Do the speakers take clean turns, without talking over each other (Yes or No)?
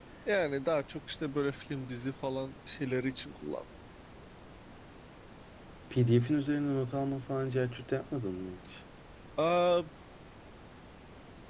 Yes